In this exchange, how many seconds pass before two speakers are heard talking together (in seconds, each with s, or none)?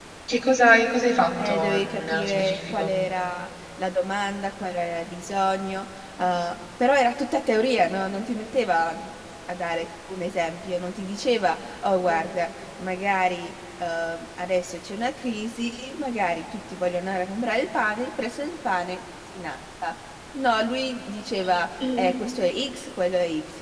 1.4 s